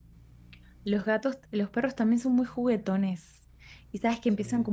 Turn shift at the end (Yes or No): No